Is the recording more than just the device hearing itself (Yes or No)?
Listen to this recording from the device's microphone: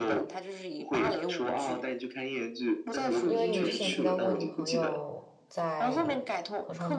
Yes